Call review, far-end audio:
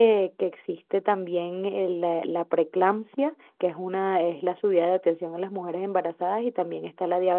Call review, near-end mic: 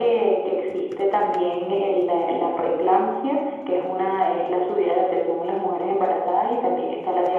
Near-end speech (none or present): none